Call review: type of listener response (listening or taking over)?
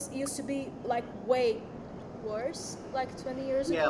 taking over